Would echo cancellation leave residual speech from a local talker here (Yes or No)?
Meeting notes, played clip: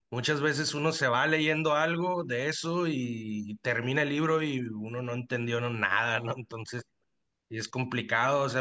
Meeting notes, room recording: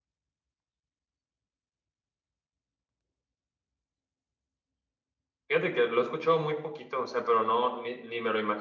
Yes